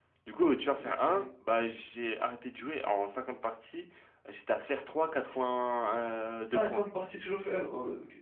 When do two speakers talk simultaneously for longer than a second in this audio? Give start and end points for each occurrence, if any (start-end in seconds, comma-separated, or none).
none